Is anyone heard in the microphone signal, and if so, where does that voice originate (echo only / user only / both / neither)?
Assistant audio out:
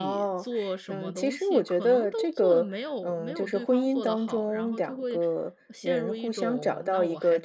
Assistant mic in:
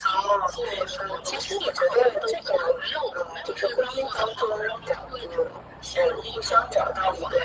echo only